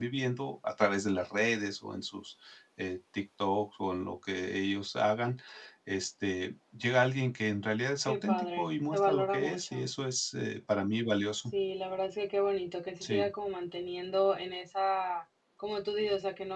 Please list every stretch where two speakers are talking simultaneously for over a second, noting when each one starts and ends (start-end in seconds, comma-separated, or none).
8.0-9.8